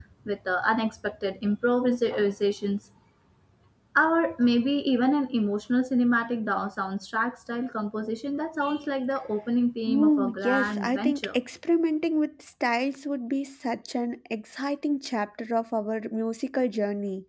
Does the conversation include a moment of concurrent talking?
Yes, from 9.9 s

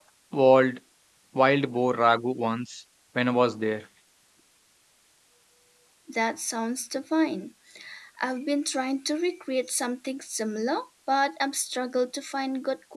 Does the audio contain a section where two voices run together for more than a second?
No

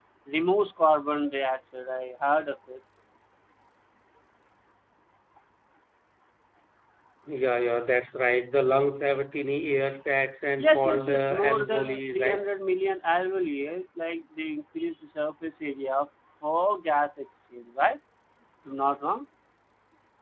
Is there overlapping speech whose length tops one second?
Yes, from 10.6 s

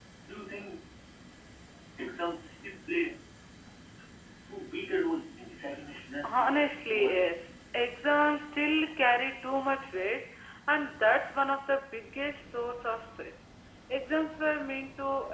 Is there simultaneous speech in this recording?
Yes, from 6.2 s

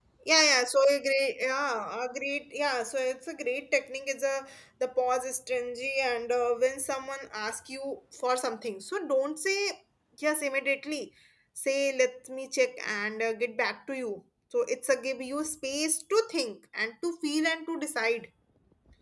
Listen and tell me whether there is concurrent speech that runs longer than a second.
No

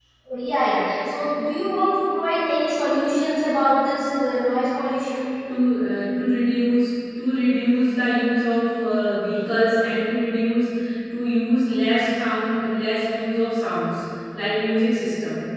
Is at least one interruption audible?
No

